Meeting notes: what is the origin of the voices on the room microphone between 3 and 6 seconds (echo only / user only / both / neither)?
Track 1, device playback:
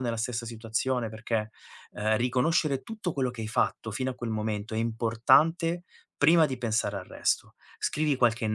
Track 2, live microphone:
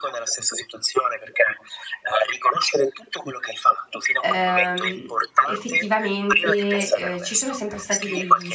both